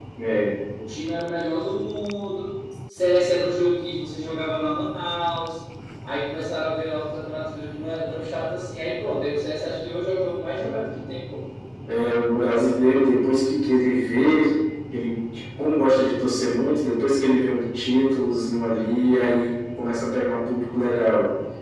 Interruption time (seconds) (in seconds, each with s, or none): none